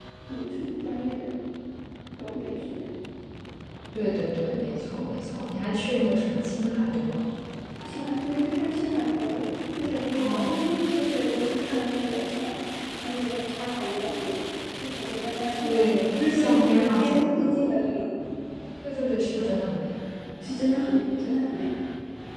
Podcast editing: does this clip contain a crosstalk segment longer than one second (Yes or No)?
Yes